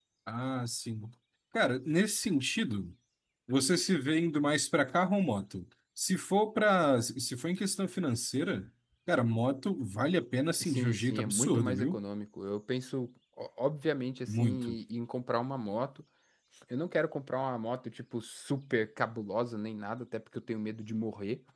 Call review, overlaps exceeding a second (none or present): present